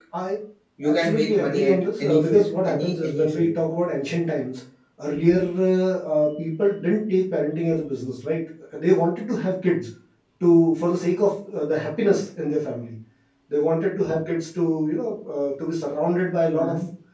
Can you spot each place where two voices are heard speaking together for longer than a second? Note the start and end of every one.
0.9-3.5

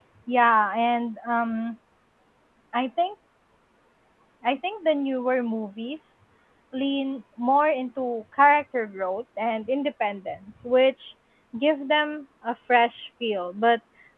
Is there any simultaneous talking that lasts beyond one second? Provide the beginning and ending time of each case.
none

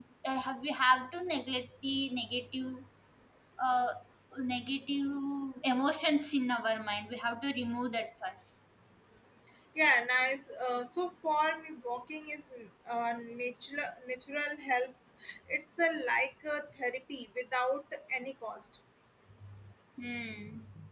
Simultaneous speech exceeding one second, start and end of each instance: none

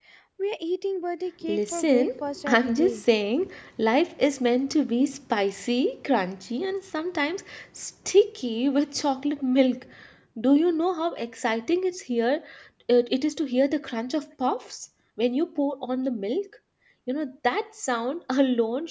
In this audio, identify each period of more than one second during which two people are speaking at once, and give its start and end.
1.5-3.0

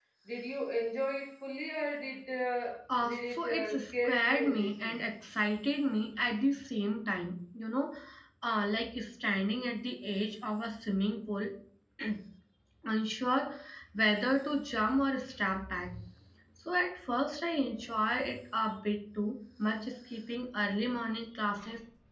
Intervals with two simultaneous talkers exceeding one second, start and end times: 3.1-5.0

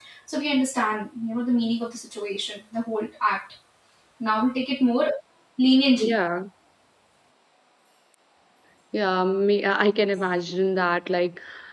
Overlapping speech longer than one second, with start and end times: none

